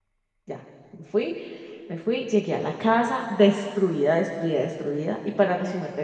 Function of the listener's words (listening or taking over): listening